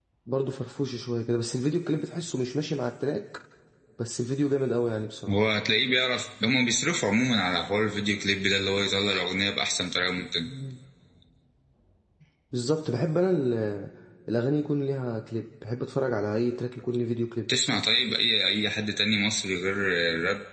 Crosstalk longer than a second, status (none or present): none